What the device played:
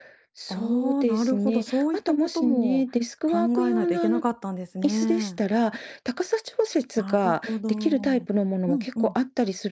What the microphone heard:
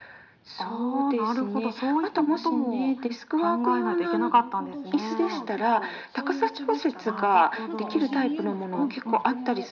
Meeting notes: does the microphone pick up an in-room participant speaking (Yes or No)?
Yes